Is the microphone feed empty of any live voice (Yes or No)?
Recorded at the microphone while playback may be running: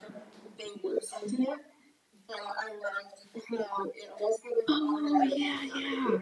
No